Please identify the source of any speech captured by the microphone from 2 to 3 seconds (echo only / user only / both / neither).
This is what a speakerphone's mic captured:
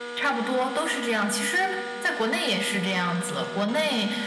echo only